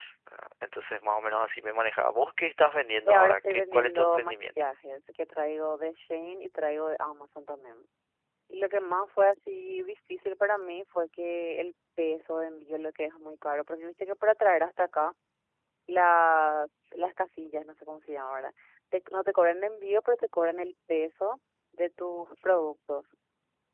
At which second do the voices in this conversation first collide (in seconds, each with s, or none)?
3.0 s